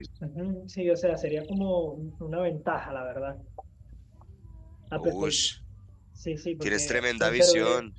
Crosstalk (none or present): present